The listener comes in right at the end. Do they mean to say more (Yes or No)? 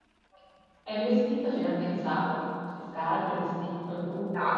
Yes